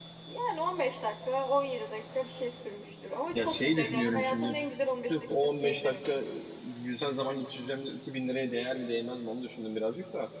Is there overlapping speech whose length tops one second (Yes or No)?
Yes